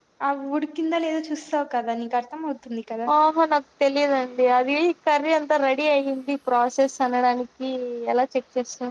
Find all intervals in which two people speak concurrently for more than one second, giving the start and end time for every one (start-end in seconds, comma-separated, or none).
none